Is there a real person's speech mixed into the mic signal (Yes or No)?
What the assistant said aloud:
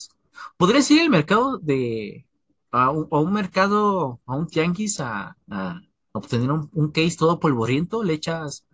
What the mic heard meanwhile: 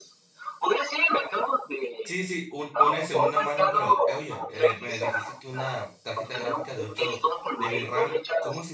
Yes